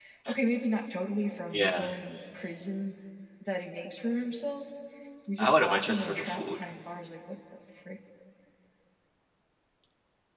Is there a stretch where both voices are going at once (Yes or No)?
Yes